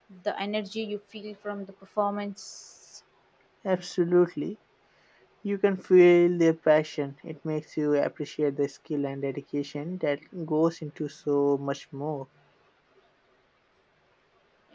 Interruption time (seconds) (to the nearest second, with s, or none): none